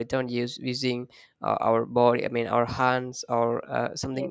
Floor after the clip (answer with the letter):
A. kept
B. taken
A